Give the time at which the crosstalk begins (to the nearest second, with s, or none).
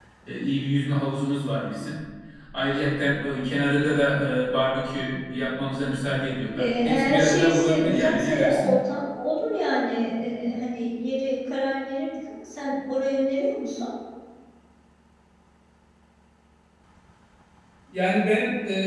7 s